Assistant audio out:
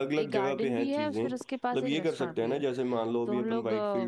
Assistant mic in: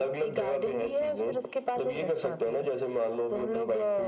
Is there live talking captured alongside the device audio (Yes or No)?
No